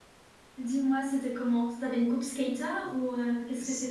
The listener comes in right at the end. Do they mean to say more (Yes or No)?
Yes